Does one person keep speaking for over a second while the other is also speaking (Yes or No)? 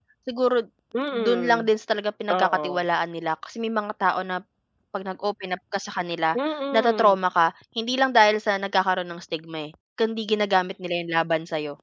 No